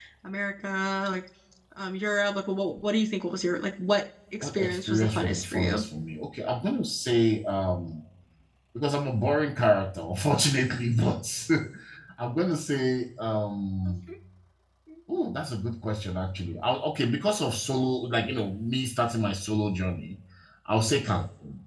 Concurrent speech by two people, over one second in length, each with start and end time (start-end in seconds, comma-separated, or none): 4.4-5.8